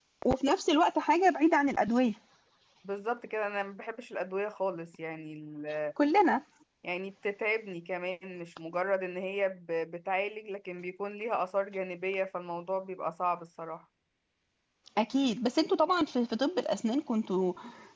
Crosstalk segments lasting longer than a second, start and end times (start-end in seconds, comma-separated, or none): none